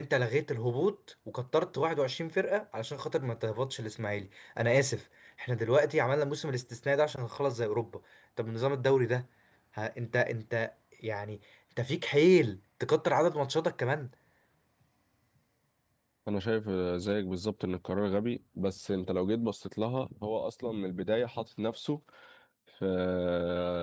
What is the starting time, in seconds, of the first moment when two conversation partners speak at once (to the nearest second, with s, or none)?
none